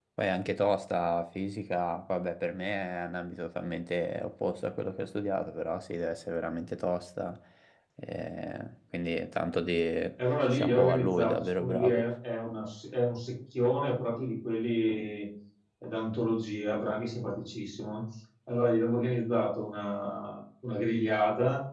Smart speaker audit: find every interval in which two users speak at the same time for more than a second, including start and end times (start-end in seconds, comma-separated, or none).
10.4-12.1